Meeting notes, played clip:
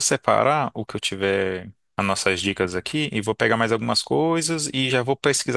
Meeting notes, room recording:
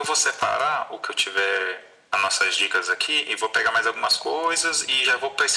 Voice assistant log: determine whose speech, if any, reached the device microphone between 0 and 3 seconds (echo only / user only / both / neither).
echo only